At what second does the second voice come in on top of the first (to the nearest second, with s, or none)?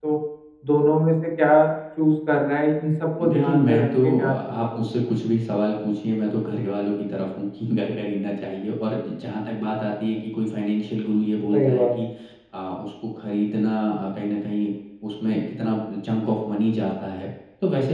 3 s